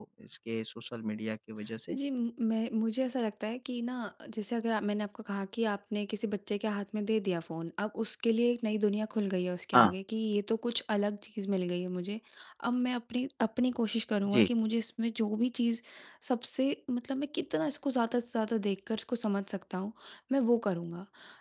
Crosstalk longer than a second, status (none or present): none